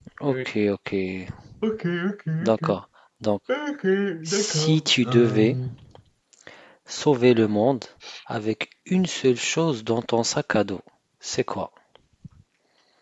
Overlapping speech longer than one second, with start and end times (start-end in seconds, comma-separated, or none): 4.3-5.6